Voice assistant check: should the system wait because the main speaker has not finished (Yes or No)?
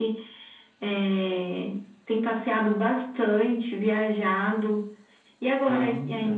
Yes